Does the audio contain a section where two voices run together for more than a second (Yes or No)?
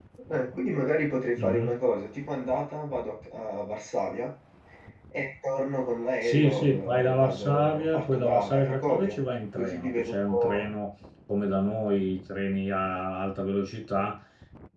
Yes